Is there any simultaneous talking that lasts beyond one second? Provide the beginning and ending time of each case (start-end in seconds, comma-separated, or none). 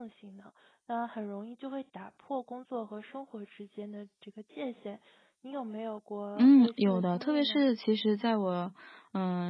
6.4-7.6